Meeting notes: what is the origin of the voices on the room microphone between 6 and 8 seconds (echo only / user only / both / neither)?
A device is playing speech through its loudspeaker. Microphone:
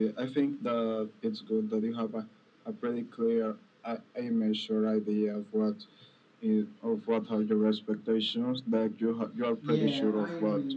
echo only